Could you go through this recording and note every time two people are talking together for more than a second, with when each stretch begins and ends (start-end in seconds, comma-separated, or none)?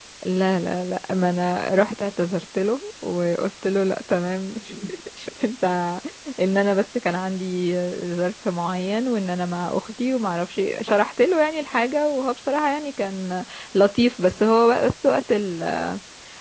none